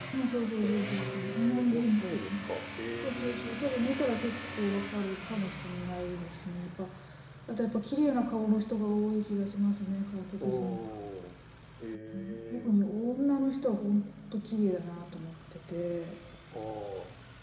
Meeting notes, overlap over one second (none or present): present